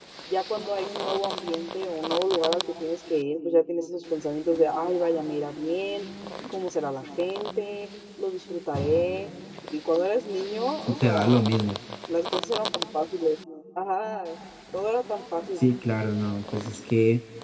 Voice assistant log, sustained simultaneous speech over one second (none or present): none